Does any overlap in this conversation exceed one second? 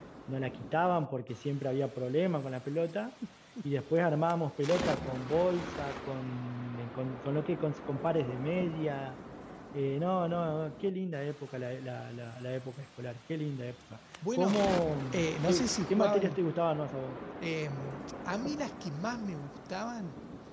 Yes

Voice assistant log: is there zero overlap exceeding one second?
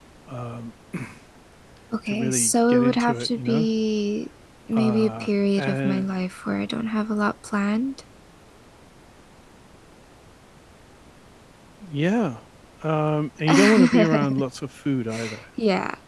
No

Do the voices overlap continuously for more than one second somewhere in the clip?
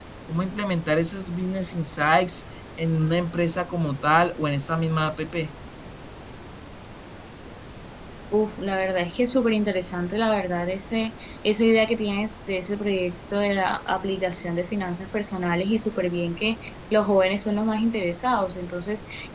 No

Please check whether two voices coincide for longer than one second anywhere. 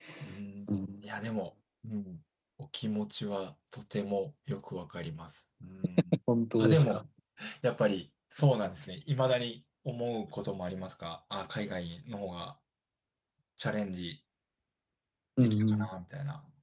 No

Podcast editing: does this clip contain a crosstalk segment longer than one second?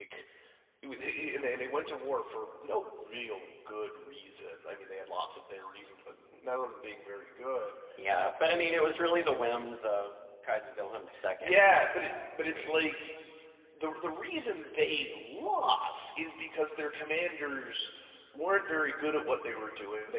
No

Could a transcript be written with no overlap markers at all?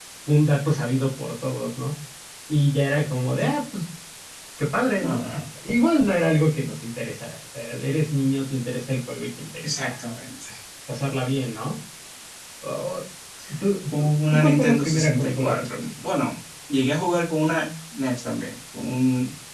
No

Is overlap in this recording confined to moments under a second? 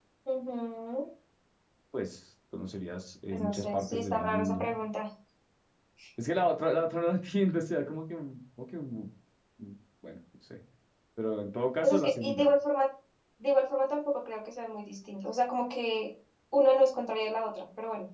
No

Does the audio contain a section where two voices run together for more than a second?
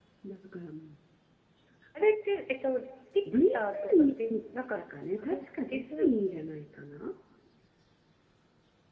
Yes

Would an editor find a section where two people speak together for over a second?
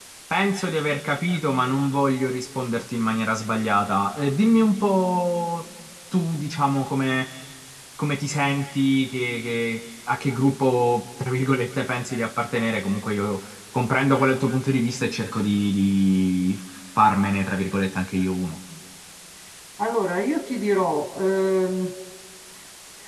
No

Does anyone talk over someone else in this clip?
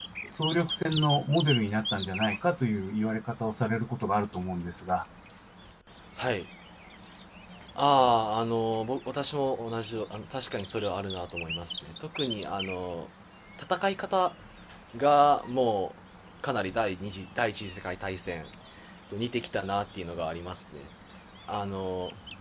No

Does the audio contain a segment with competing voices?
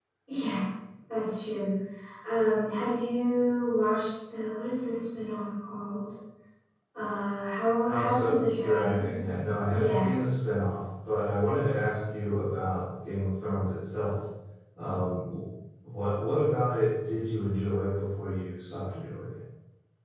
Yes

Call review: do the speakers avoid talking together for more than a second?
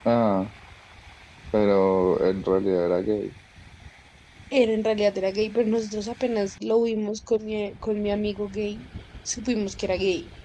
Yes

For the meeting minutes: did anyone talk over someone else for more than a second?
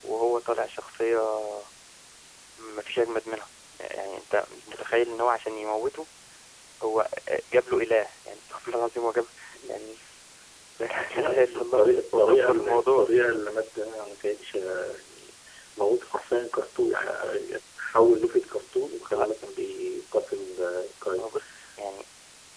Yes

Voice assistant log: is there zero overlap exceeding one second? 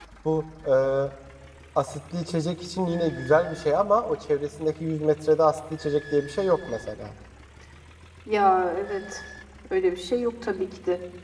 Yes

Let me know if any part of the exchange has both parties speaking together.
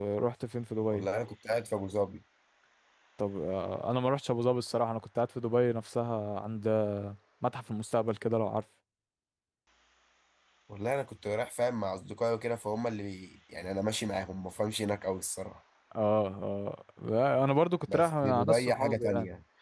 Yes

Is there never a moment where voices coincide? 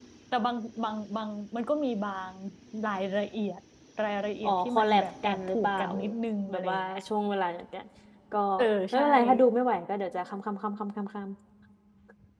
No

